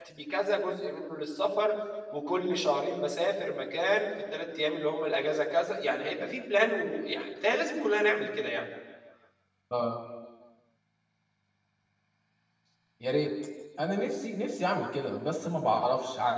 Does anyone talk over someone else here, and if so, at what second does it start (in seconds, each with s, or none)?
none